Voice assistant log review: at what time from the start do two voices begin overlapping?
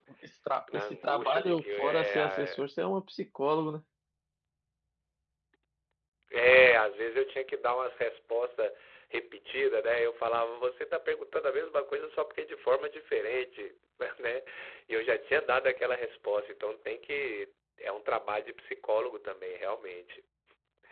1 s

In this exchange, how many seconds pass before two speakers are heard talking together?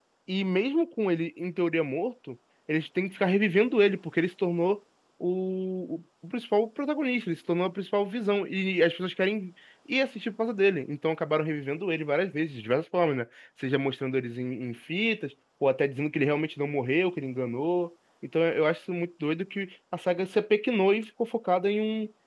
none

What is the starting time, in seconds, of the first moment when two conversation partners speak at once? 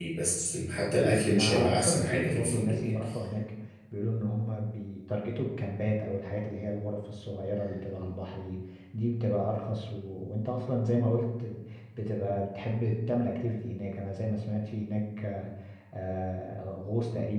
1 s

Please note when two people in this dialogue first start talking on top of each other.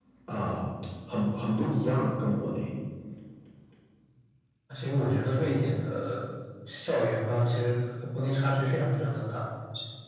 none

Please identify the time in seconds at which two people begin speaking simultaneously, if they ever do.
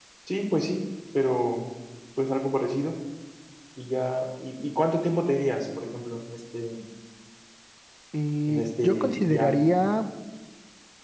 8 s

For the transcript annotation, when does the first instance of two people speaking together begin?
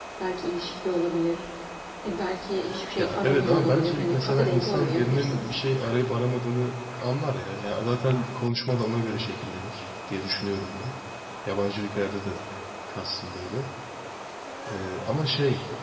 3 s

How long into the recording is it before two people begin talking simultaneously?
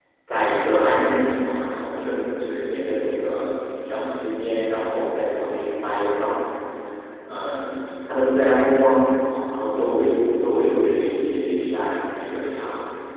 none

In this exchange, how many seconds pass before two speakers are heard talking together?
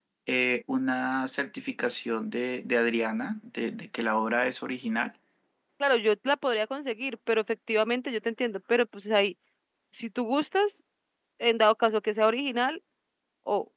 none

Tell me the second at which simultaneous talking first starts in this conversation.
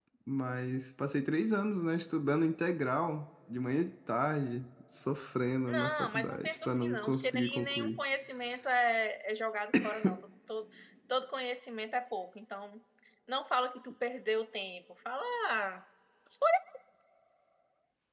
6 s

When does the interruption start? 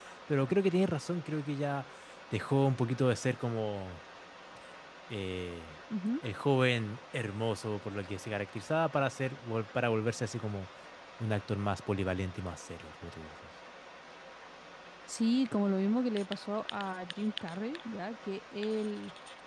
none

